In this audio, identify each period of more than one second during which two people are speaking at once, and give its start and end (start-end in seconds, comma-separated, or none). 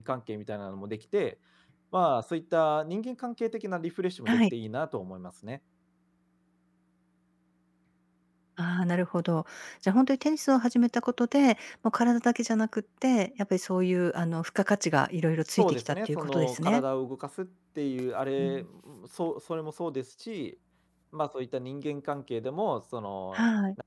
15.6-16.8